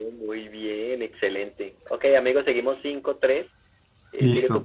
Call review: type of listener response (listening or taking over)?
taking over